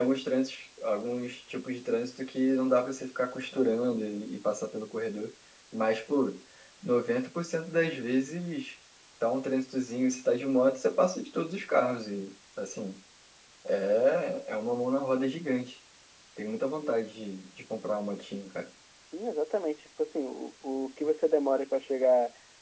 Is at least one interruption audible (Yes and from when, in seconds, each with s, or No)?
No